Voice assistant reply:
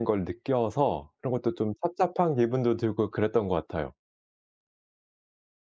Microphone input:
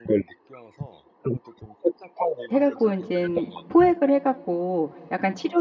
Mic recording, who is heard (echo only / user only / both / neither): both